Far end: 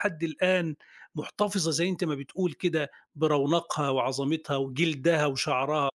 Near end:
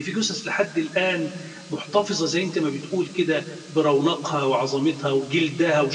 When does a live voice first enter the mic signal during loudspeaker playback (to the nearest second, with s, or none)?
none